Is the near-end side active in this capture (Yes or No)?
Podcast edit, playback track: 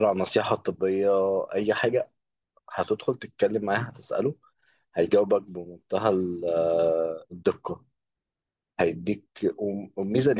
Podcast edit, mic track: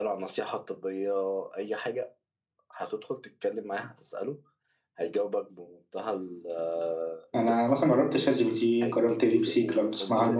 Yes